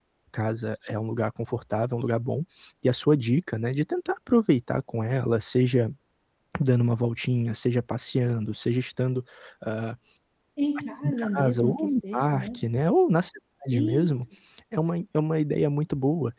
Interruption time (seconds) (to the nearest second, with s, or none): 11 s